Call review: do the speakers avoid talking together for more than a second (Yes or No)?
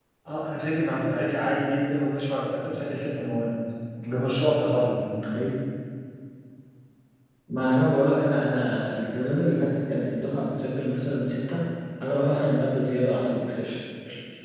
Yes